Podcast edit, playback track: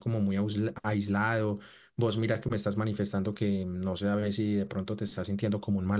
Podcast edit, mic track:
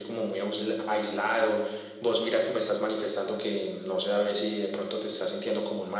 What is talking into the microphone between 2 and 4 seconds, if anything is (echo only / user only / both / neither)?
echo only